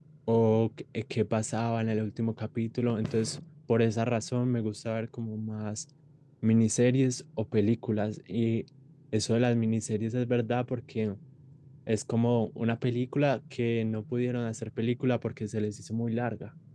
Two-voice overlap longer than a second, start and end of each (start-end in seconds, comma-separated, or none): none